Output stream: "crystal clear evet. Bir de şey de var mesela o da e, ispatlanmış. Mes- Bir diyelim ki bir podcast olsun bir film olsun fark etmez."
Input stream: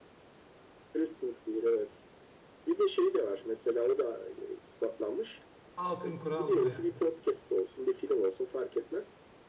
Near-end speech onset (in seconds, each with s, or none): 5.7 s